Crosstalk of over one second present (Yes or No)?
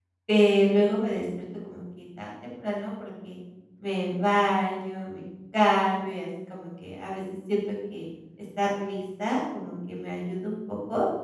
No